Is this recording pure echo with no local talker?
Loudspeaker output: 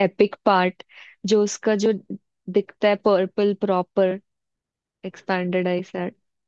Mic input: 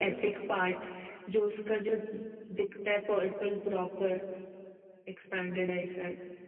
Yes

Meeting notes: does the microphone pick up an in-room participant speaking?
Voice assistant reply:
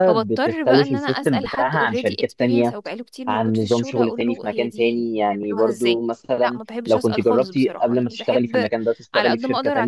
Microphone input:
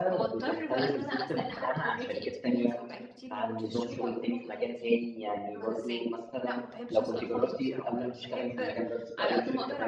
No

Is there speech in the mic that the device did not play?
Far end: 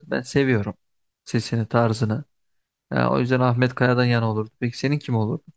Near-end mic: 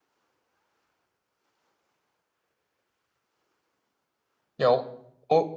Yes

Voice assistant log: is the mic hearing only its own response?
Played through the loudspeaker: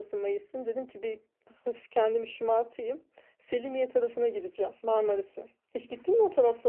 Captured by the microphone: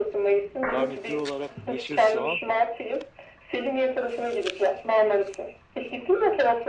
No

